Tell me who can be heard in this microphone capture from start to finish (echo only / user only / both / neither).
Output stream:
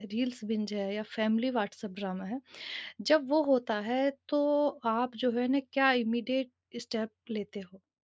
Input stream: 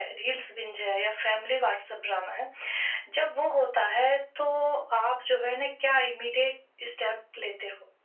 echo only